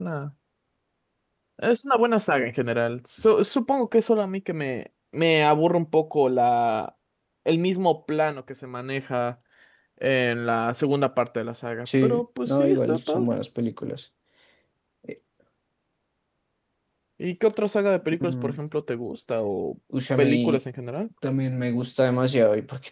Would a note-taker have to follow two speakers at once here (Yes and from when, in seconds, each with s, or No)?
Yes, from 11.9 s